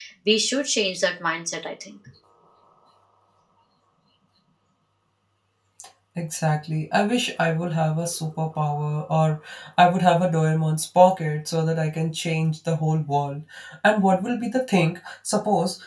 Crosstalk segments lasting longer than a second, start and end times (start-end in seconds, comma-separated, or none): none